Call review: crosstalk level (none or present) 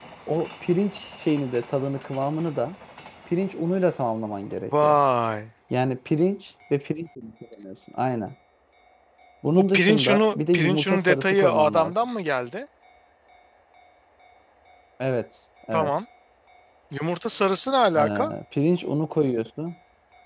present